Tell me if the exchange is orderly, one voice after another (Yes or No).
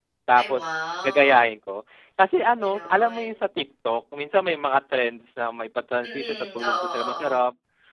No